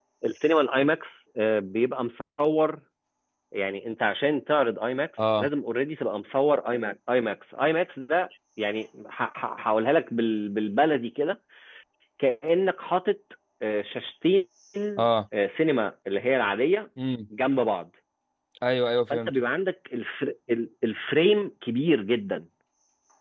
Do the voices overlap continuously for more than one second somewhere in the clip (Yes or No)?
No